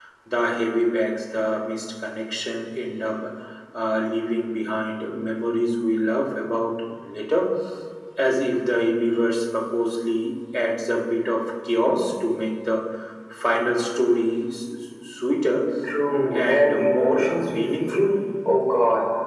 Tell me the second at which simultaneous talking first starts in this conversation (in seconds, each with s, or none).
16.1 s